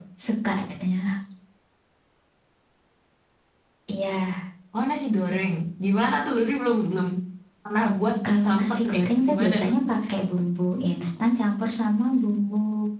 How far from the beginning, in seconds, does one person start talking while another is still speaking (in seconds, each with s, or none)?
8.3 s